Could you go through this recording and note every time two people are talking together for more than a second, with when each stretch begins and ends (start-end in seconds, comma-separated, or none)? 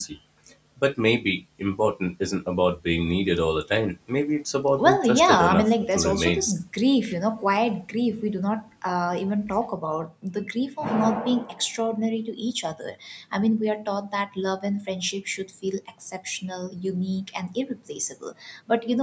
4.8-6.5